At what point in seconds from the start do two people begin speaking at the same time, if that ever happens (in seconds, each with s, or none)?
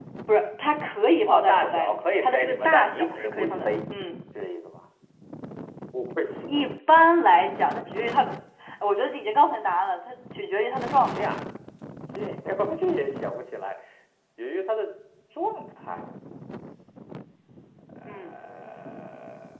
1.2 s